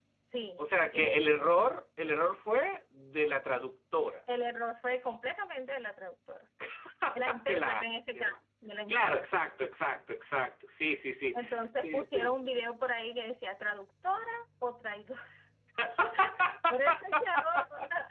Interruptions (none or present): present